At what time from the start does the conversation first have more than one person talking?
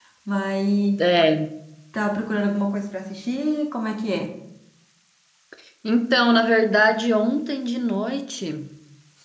none

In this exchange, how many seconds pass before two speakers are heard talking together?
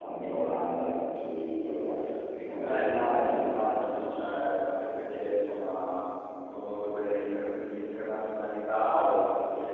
2.6 s

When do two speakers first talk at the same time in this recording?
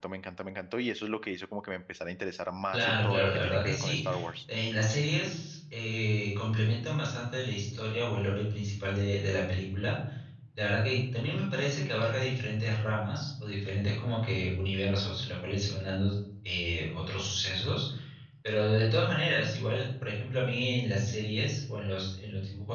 2.7 s

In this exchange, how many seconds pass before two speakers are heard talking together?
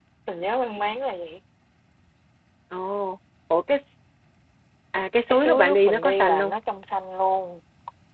5.3 s

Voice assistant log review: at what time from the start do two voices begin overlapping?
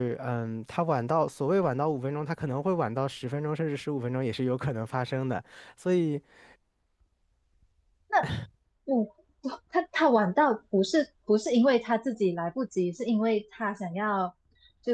none

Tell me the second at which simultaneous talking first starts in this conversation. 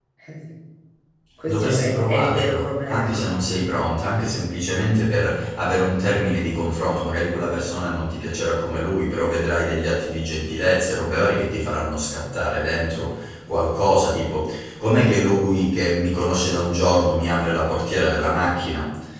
1.4 s

